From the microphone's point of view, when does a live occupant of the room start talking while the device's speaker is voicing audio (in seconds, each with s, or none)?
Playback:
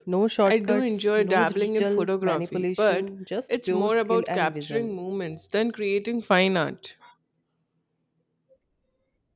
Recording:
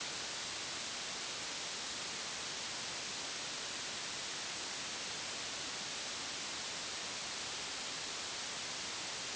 none